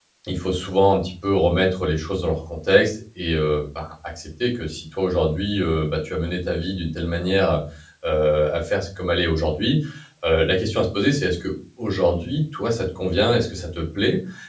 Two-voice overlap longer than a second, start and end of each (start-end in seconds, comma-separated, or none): none